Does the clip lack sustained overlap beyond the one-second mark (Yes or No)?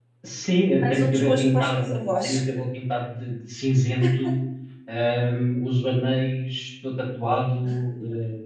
No